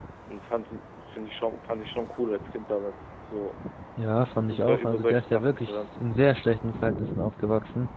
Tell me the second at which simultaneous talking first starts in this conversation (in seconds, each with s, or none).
4.5 s